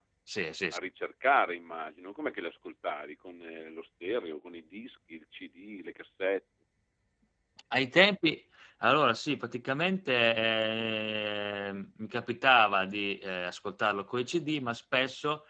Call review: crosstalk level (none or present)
none